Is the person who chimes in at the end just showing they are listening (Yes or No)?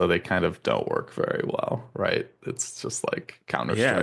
No